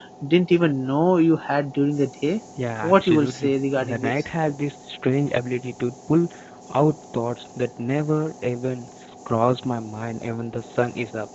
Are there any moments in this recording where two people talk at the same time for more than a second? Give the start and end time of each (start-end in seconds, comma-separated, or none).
2.8-4.1